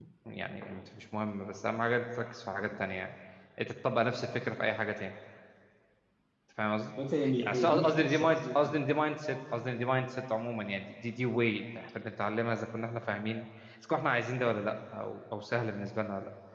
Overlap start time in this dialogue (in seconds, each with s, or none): 7.4 s